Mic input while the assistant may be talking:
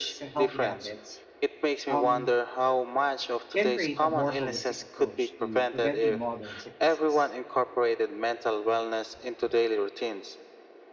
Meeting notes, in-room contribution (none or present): present